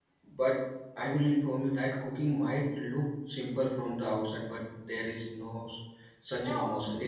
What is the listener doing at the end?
taking over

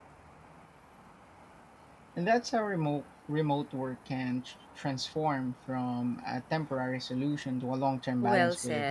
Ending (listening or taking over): taking over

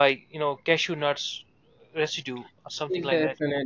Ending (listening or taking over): taking over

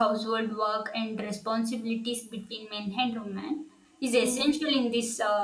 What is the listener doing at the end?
listening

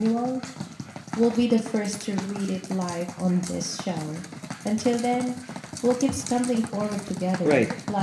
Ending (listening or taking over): taking over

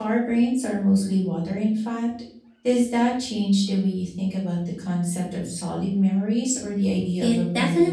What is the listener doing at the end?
taking over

